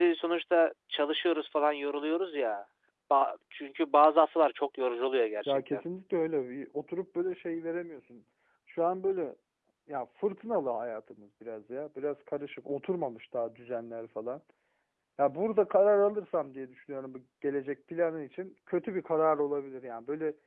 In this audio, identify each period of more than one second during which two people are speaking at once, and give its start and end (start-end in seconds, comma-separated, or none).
none